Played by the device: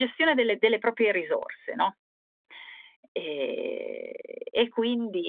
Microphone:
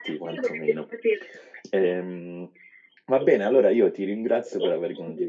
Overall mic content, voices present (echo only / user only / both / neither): both